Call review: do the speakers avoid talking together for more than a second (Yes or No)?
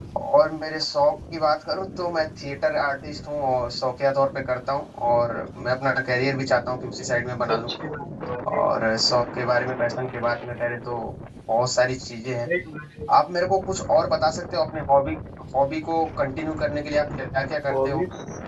Yes